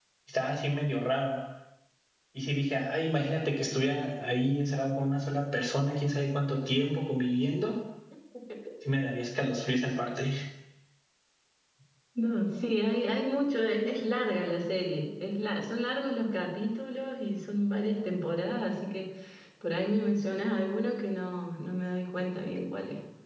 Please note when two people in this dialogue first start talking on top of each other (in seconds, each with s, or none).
none